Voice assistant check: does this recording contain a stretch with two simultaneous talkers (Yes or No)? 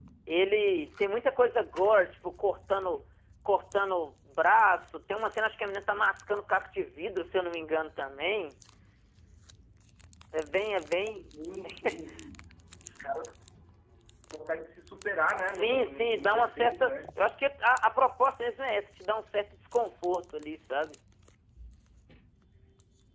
Yes